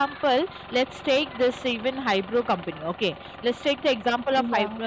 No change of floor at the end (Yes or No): Yes